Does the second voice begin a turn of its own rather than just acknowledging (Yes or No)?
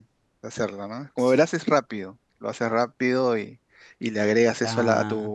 No